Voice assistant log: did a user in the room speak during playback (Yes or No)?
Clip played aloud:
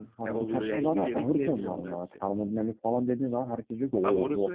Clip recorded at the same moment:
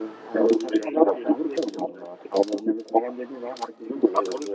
No